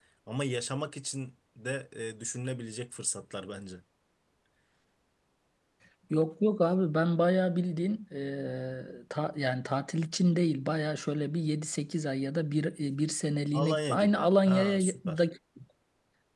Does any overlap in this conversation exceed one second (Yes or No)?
Yes